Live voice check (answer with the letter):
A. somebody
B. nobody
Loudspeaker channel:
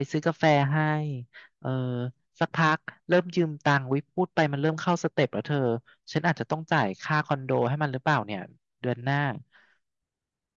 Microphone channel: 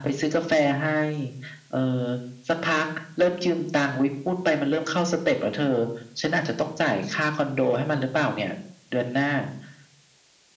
B